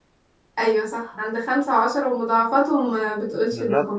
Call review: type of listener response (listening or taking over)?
taking over